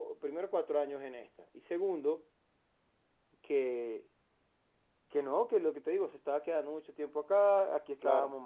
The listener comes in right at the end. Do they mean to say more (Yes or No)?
No